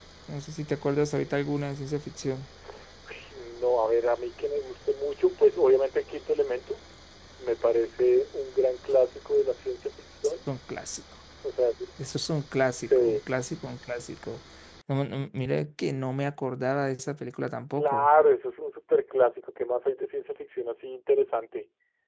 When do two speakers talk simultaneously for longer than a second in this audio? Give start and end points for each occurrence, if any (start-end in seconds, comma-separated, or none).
none